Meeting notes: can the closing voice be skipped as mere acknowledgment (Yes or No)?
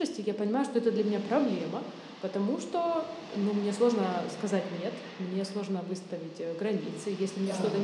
Yes